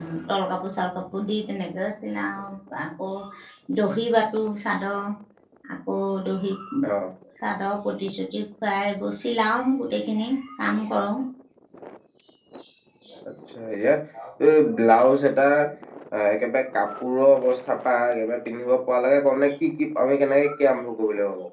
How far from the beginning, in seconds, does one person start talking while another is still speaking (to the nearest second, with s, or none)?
none